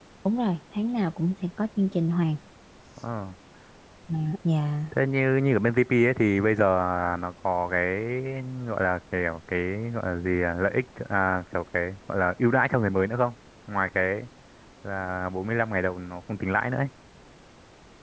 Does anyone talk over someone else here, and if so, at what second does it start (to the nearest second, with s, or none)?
none